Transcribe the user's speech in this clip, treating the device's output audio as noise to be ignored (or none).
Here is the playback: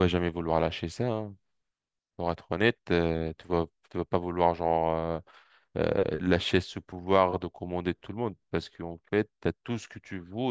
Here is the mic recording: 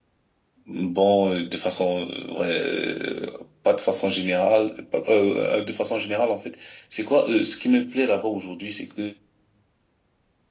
Bon, euh, de façon, euh, ouais, euh, pas de façon générale, pas- euh, euh, de façon générale en fait. C'est quoi, euh, ce qui me plaît là-bas aujourd'hui, c'est que